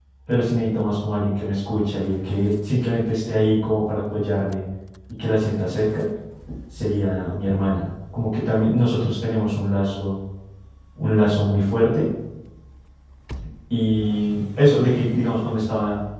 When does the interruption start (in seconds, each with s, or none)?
none